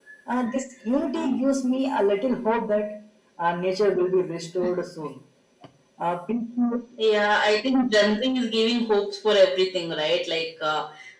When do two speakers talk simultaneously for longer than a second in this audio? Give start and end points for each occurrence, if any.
none

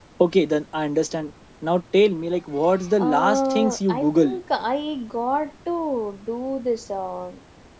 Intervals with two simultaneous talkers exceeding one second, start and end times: 3.0-4.3

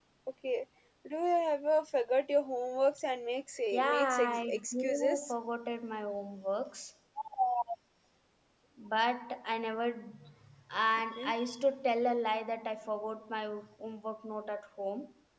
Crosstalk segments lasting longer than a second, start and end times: 3.7-5.3

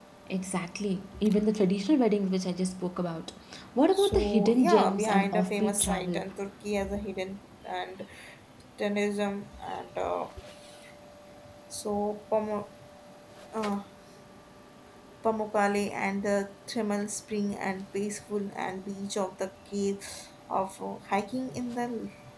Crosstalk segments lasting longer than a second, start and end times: 3.9-6.2

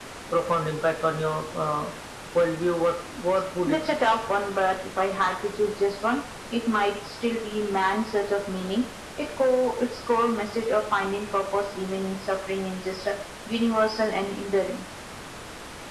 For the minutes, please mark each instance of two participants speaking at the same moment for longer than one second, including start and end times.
none

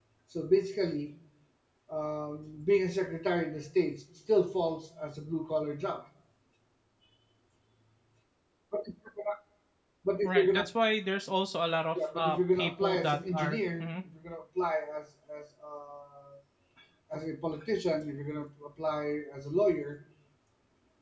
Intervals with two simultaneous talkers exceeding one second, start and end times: 12.2-13.9

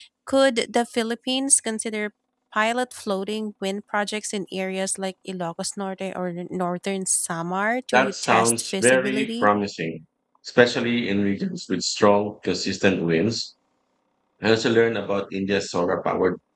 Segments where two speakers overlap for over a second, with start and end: 7.9-9.5

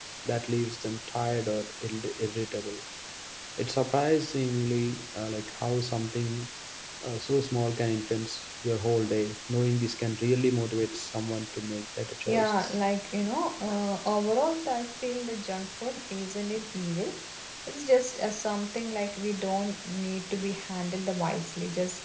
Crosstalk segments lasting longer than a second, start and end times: none

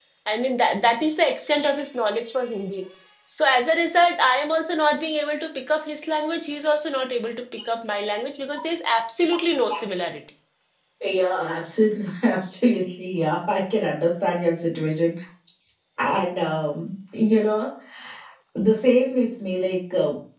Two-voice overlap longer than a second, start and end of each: none

